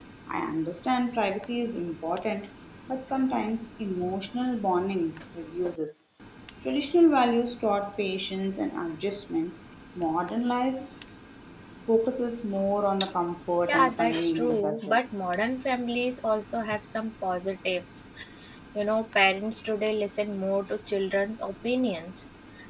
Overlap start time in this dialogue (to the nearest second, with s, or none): 14 s